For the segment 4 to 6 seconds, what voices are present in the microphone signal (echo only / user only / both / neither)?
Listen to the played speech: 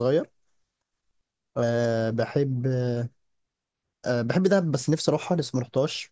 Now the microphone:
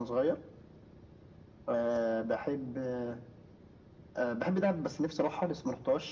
echo only